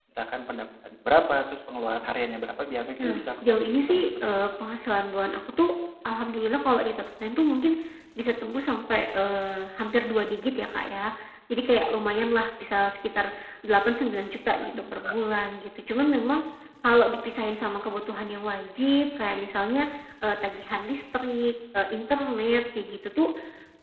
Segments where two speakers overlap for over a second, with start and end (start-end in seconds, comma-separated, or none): 3.0-4.3